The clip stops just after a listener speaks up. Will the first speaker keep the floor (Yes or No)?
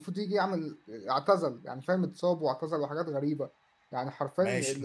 No